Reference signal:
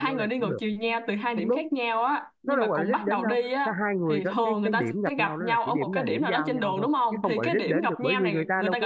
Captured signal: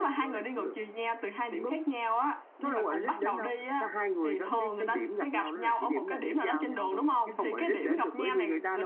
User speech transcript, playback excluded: none

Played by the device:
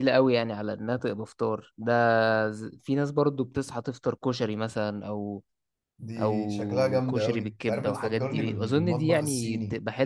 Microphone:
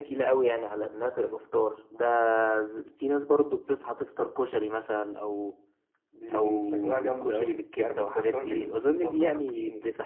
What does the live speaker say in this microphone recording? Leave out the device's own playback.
none

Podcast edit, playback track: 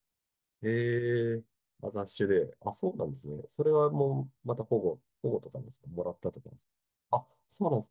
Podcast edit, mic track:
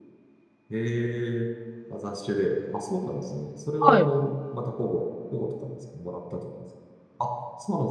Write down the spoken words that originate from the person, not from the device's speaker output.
はい。

